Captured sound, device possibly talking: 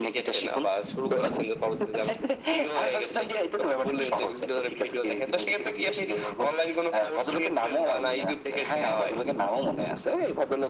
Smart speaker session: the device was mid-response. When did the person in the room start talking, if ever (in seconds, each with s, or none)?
none